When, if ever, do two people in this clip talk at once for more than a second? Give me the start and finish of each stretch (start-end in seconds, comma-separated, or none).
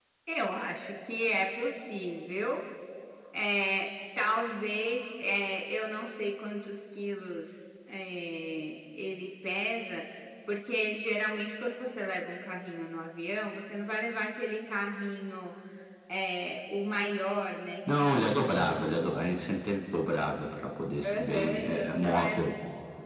21.0-22.4